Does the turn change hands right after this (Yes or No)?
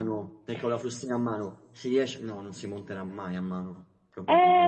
Yes